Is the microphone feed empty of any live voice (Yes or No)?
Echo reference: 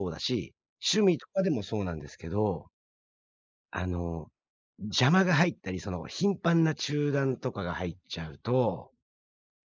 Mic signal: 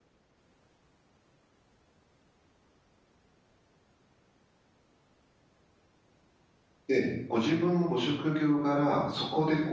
No